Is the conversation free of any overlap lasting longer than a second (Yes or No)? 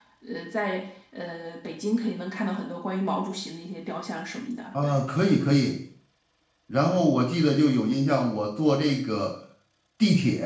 Yes